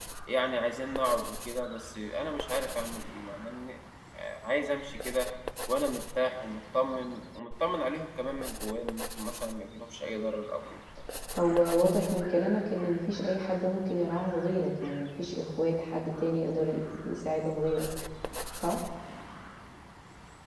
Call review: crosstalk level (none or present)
none